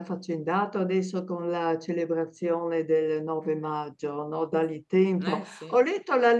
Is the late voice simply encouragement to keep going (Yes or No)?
Yes